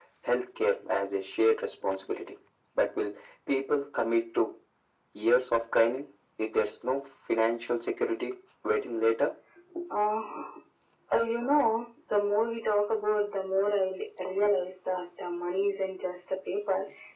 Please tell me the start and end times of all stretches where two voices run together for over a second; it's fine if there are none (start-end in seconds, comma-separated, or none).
none